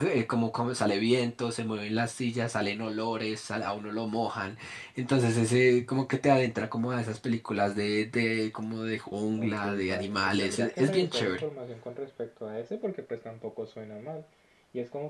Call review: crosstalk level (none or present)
present